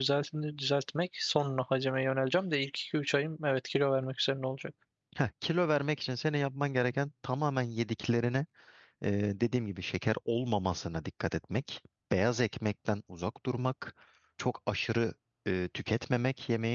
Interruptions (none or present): none